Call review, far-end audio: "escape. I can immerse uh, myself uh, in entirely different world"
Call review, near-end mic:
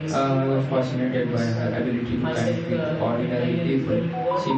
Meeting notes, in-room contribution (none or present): present